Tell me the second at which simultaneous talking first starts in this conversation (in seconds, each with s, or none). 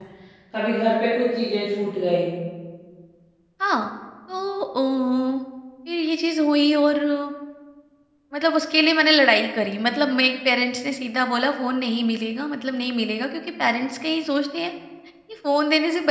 none